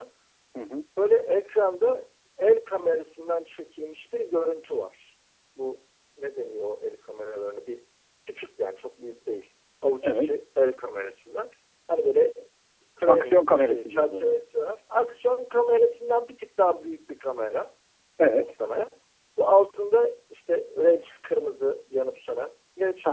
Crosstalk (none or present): present